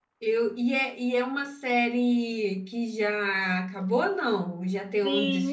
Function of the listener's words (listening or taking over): taking over